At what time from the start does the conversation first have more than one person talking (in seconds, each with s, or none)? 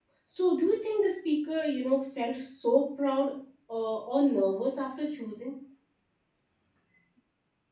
none